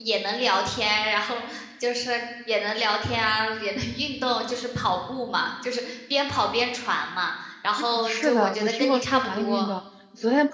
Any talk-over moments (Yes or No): Yes